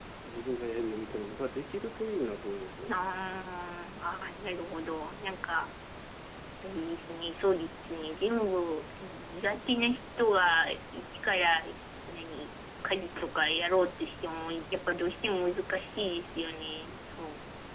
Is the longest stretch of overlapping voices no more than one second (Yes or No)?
Yes